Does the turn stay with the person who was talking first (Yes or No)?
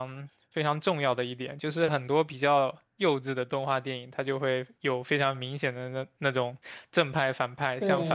Yes